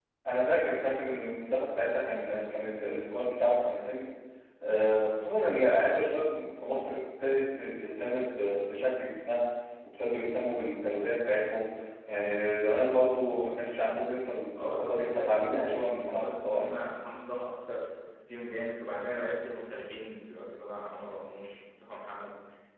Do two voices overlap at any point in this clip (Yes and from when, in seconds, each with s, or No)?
Yes, from 14.6 s